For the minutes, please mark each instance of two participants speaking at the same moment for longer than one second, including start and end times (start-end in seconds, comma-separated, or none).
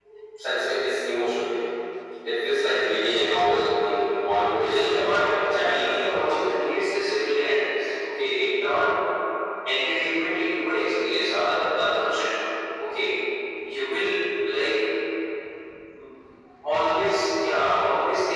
4.4-6.3